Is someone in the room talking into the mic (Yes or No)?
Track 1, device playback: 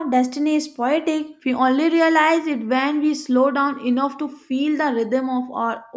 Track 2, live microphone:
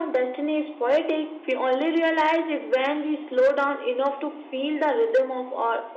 No